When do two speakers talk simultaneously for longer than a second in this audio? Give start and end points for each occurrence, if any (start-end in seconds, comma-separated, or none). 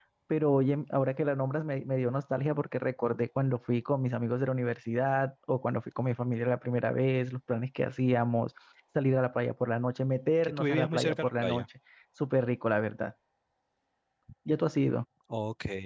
10.4-11.6